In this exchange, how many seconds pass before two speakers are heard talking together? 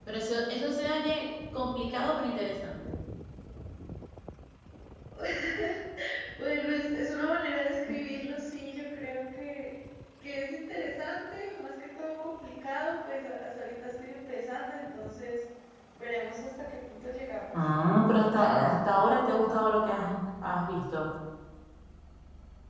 none

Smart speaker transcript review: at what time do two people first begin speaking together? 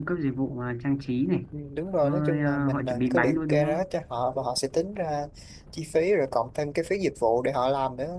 2 s

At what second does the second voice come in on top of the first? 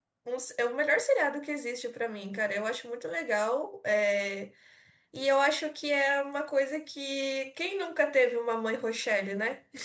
none

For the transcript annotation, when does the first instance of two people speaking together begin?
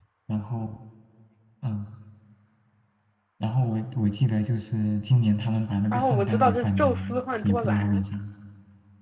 6 s

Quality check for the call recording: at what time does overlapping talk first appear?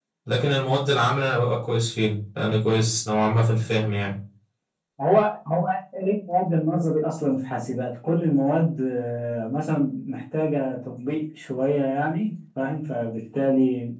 none

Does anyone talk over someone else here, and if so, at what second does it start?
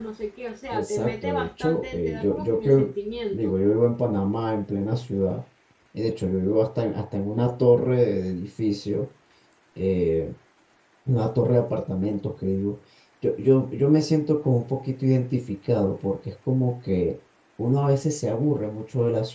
1 s

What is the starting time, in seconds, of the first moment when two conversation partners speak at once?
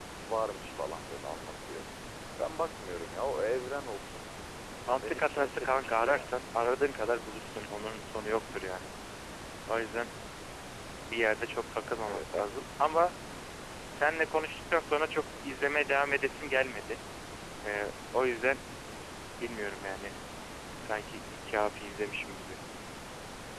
5 s

